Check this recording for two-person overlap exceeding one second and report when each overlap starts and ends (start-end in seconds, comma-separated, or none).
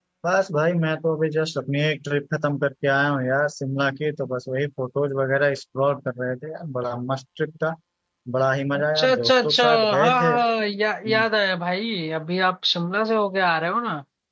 8.7-10.3